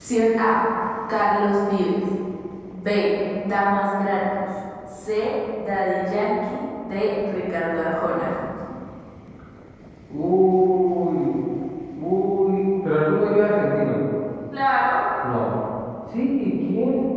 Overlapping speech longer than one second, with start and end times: none

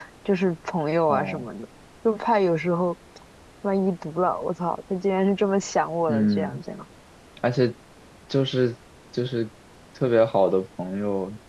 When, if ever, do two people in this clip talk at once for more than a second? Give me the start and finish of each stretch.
none

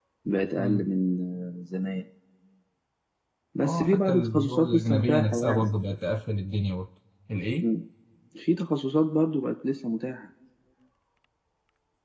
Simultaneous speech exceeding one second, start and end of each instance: 3.6-5.7

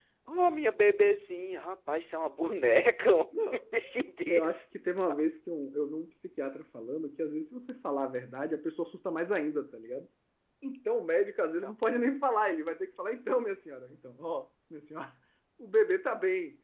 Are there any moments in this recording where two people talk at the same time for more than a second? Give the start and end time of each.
none

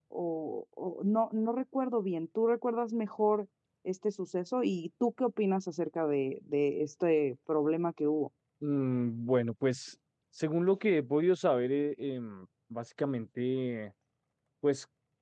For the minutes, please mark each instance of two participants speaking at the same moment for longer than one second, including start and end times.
none

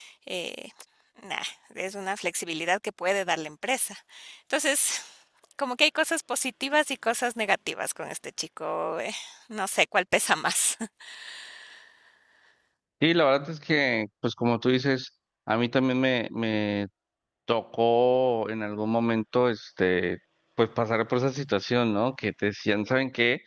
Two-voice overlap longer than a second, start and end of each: none

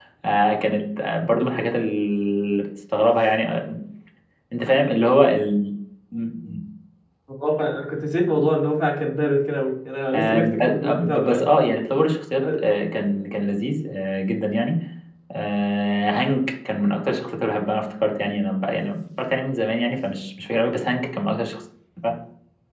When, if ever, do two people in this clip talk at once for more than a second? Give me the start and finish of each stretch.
10.1-11.4

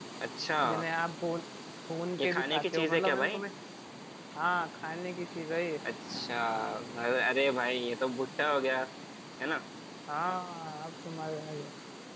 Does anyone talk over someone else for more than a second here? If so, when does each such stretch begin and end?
2.2-3.4

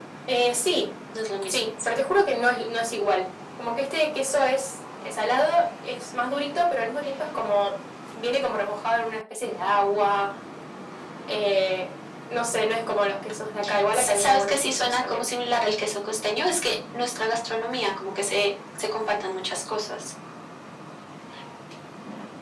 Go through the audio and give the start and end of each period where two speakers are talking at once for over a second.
13.9-15.3

